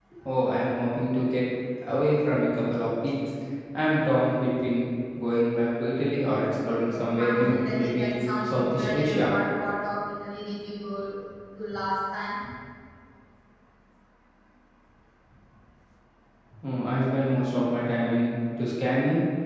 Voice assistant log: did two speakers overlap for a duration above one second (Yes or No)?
Yes